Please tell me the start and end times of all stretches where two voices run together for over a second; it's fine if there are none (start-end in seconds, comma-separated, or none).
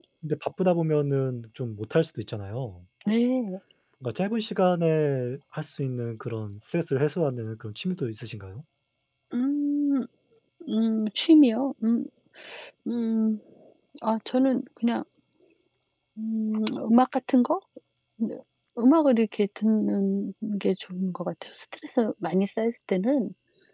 none